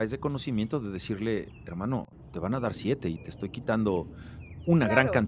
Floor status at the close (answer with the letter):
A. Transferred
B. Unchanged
A